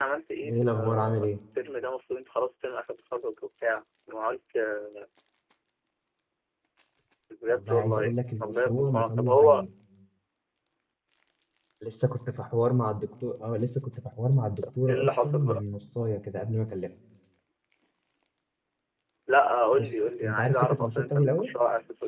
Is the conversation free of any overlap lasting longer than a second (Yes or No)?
No